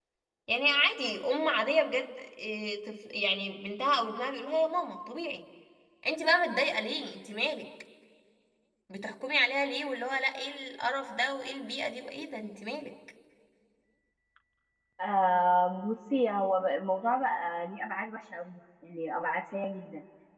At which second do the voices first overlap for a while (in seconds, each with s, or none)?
none